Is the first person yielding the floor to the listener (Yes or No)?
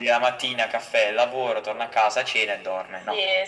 Yes